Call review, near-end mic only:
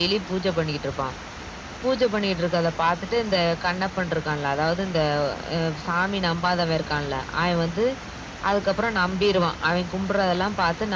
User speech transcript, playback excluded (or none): none